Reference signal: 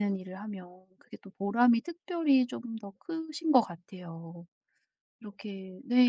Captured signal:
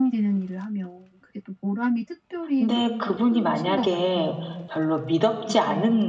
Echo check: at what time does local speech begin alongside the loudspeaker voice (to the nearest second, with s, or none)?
3 s